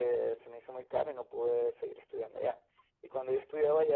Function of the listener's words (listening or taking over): listening